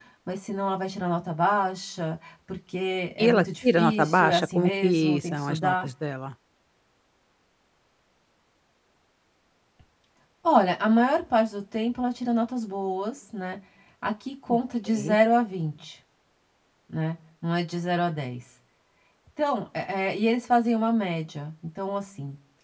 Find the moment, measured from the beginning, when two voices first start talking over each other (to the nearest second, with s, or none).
3 s